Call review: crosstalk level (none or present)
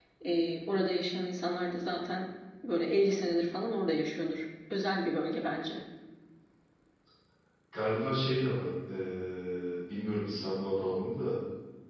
none